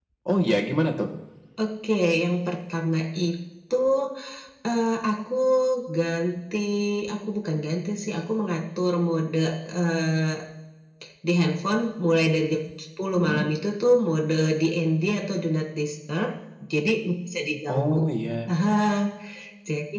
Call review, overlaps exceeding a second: none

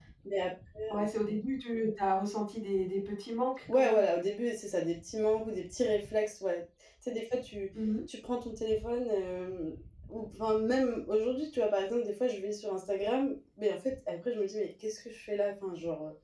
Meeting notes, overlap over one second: none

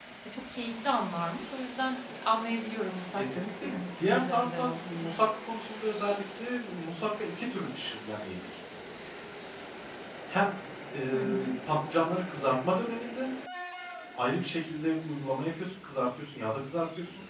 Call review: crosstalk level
present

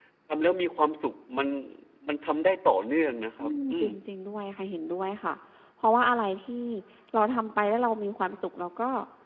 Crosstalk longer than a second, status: none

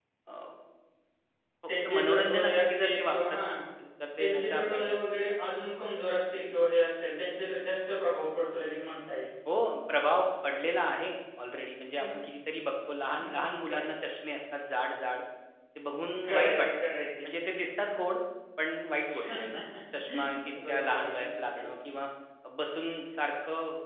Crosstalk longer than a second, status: present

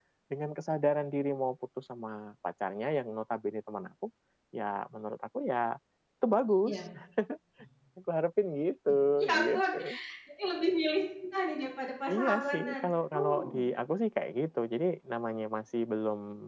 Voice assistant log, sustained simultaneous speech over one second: present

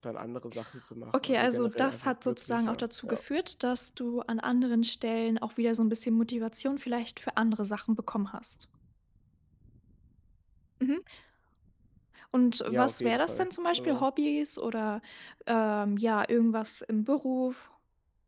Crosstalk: present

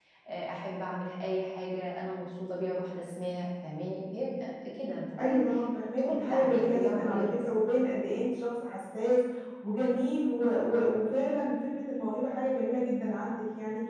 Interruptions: present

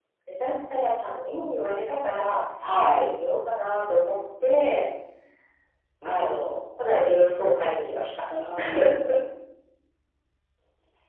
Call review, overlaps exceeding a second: none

